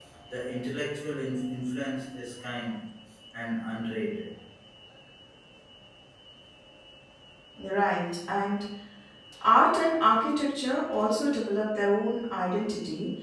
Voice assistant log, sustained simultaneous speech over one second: none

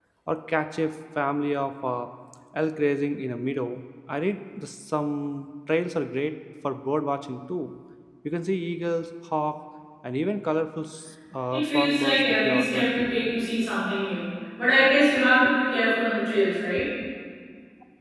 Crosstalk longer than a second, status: present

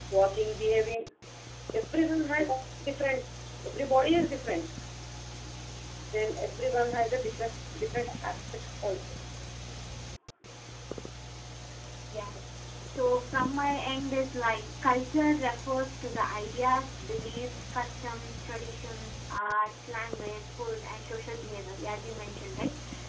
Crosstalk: none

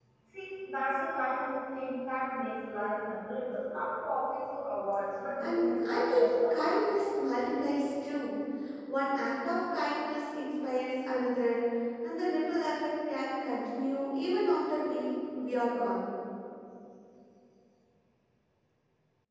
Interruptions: present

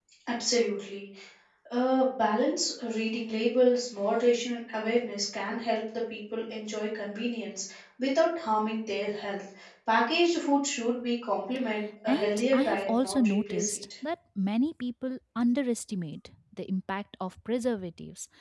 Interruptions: present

